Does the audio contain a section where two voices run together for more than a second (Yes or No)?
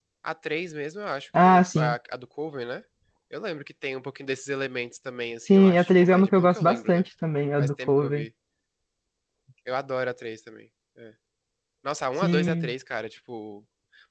Yes